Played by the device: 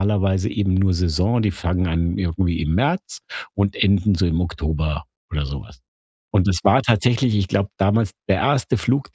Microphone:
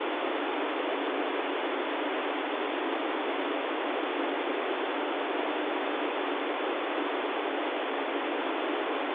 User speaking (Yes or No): No